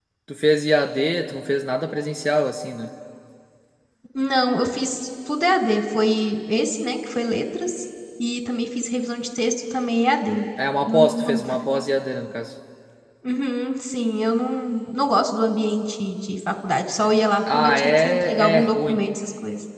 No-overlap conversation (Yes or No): No